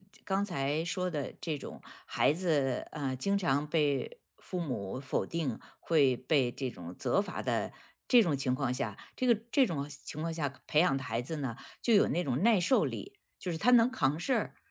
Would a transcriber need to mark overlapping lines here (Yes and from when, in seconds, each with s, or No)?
No